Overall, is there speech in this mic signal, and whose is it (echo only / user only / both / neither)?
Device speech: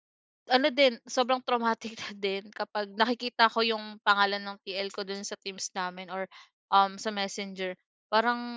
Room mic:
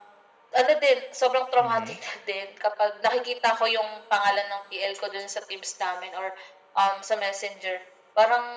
both